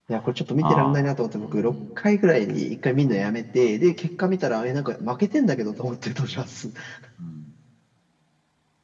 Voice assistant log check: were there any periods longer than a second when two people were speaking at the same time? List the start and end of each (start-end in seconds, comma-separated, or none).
none